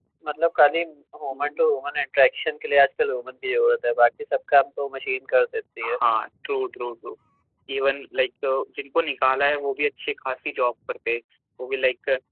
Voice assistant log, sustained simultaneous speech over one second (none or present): none